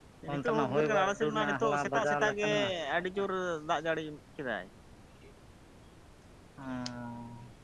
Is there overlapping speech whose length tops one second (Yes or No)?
Yes